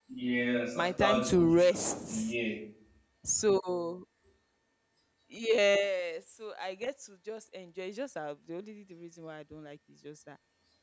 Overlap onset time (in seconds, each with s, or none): 0.8 s